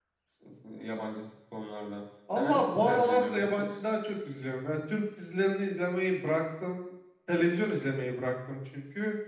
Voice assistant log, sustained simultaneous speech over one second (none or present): present